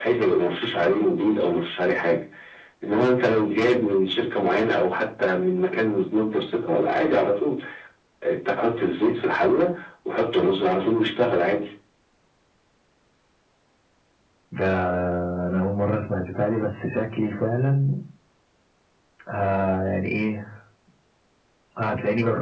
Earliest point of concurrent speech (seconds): none

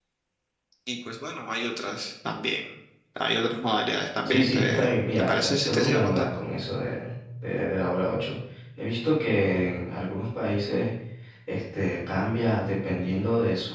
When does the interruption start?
4 s

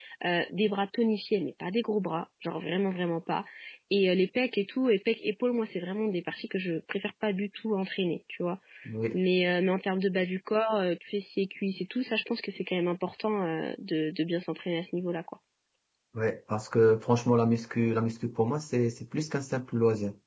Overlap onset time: none

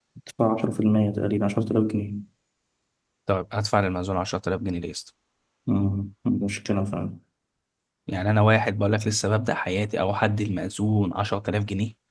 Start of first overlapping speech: none

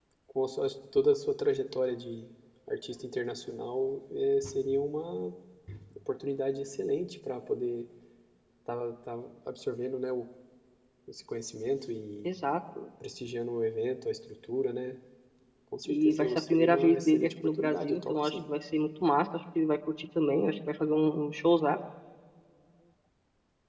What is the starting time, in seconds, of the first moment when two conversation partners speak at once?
16 s

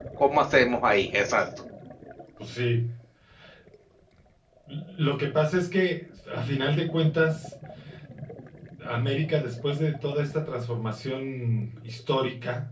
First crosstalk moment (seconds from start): none

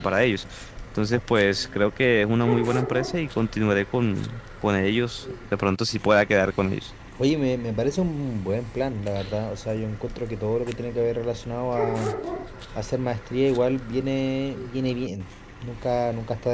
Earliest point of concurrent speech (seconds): none

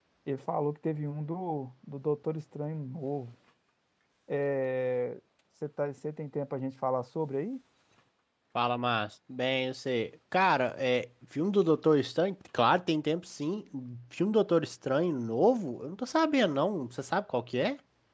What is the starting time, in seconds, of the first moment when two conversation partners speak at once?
none

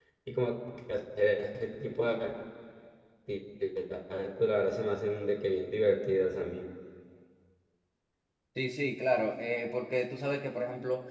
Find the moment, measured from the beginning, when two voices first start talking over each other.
none

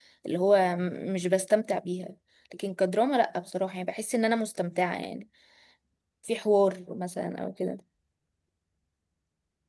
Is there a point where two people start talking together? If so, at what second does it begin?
none

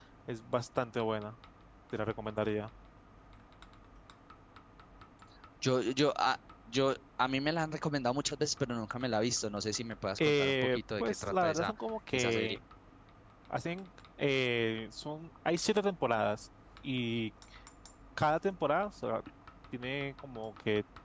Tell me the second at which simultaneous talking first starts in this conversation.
10 s

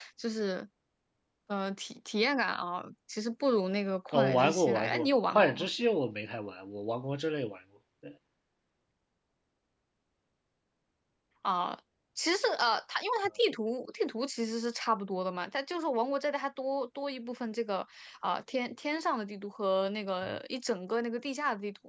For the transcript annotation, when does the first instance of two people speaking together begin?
4 s

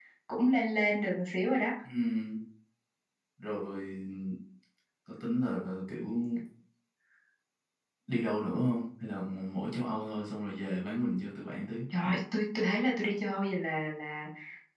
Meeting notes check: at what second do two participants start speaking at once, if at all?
none

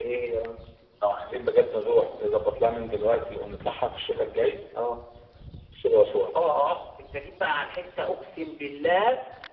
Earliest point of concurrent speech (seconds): none

